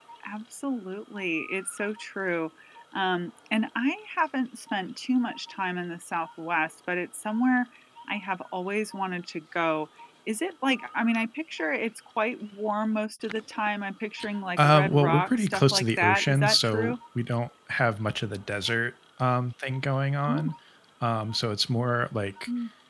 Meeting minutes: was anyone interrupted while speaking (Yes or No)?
Yes